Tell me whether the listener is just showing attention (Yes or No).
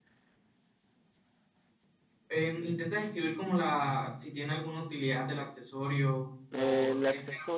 No